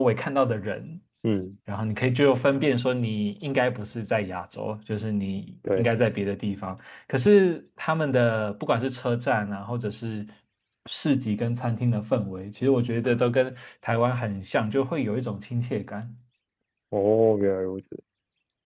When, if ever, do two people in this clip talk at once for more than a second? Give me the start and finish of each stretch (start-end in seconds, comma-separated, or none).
none